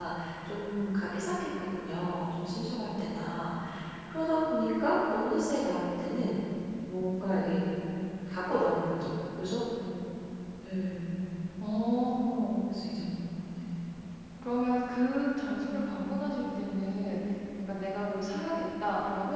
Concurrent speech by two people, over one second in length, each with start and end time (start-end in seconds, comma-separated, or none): none